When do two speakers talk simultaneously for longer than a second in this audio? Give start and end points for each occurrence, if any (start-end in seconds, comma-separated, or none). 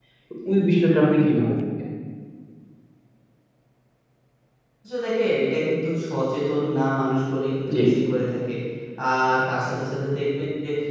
none